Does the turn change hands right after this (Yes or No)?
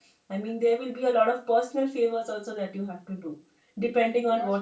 No